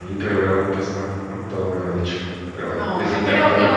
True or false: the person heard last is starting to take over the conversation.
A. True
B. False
A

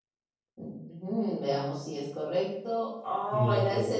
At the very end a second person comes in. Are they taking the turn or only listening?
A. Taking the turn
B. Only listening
B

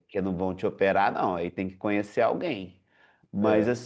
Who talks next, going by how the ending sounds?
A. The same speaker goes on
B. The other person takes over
A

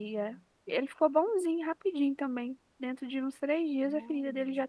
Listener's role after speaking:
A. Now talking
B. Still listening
B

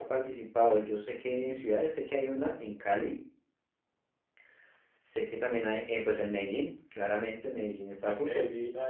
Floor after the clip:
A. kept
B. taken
B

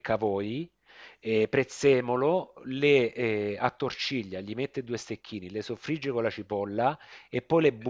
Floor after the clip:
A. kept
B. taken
A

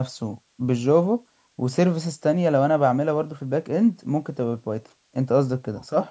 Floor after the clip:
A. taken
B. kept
A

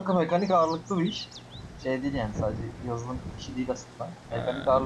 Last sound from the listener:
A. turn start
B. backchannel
B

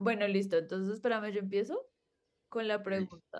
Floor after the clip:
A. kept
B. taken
A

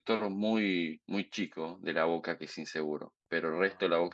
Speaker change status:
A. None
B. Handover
A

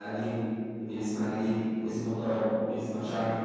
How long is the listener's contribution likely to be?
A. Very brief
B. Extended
A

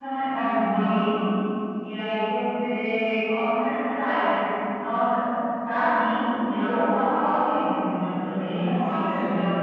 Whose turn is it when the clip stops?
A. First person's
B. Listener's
A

